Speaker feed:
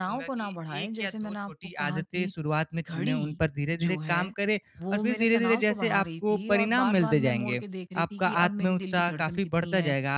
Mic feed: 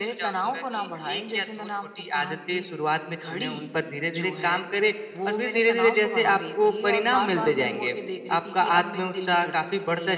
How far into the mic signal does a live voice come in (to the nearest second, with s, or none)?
none